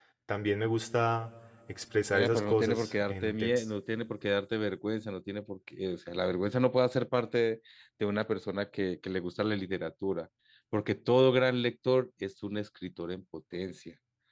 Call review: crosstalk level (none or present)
present